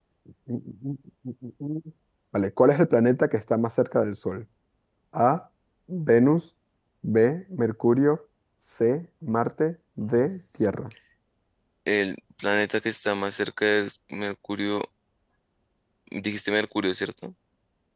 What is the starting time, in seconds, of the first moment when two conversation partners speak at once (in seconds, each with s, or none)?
none